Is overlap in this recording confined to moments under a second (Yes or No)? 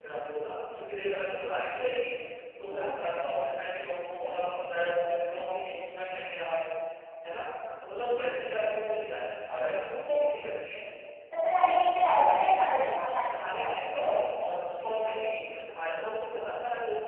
Yes